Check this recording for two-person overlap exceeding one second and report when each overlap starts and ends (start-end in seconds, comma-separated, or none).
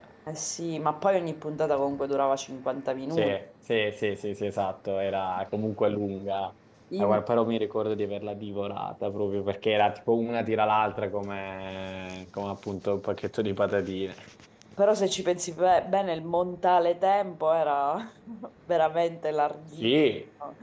none